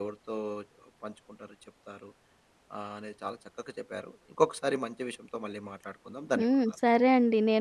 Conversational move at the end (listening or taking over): taking over